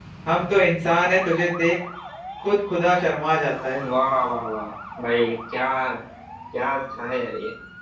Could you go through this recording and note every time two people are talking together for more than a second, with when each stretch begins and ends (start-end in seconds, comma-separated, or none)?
none